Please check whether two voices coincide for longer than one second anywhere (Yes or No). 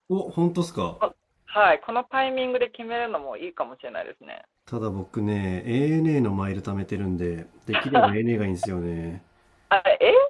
No